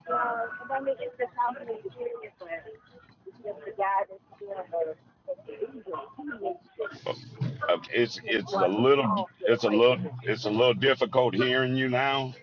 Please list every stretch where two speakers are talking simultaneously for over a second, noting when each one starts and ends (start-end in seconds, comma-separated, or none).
8.2-10.4